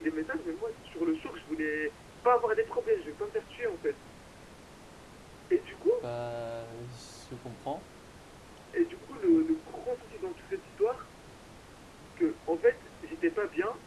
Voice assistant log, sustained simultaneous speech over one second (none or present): none